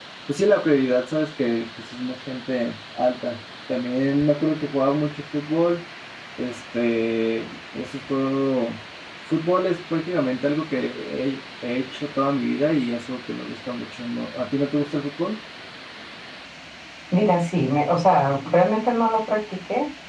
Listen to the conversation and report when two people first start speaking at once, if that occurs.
none

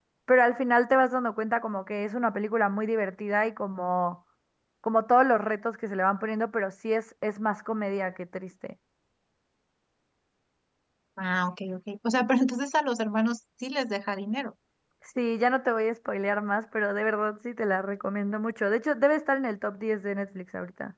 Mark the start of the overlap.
none

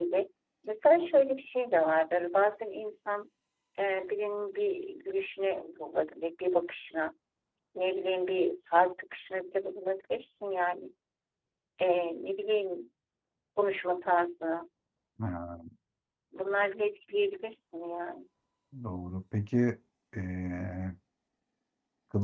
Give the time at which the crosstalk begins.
none

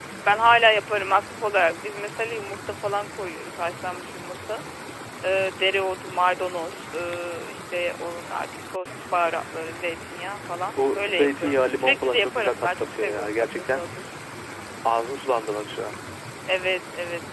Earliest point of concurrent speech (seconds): 10.8 s

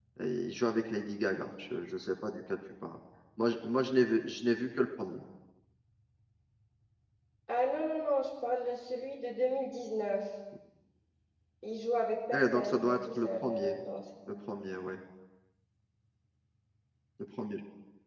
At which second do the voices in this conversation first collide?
12.3 s

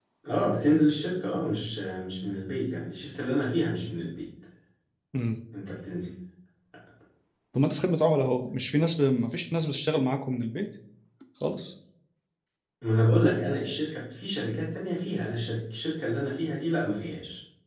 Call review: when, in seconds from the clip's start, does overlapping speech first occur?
none

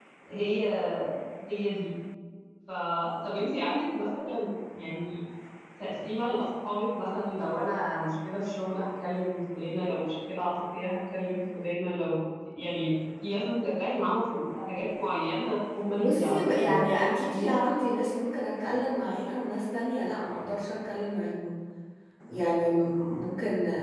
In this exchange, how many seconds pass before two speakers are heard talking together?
15.9 s

